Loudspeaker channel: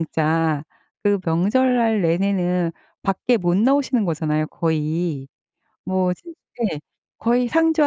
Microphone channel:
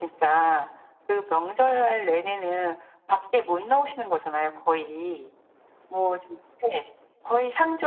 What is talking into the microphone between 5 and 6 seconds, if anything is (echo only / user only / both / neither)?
echo only